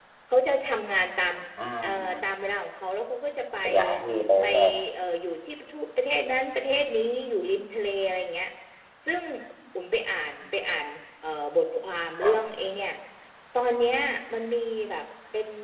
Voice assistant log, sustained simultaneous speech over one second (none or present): none